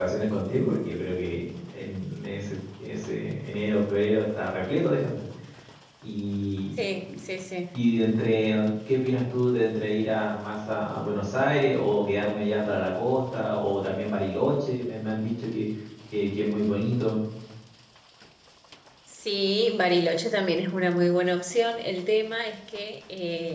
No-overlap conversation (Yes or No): Yes